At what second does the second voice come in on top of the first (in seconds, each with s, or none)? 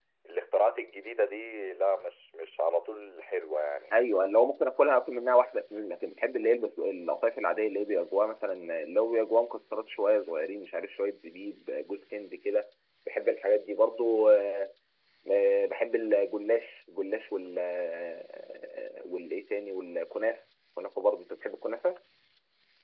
none